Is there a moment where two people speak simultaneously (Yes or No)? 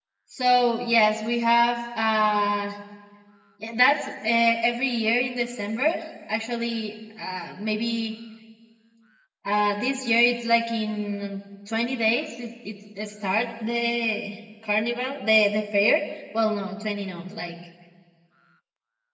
No